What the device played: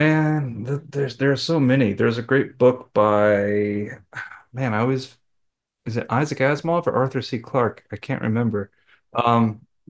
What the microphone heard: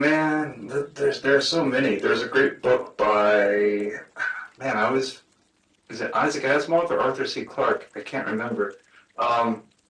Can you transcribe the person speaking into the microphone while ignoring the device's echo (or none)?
none